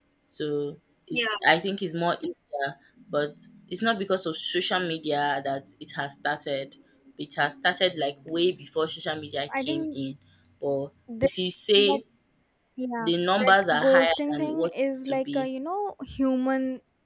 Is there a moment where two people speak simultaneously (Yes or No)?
Yes